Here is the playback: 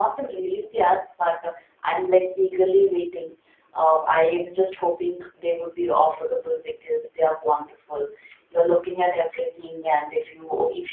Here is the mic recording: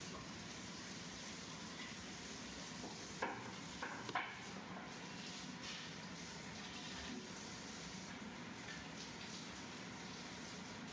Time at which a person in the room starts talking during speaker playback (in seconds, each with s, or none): none